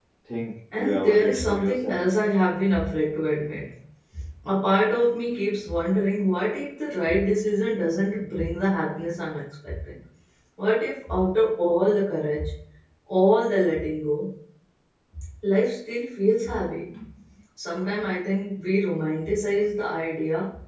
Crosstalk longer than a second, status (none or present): present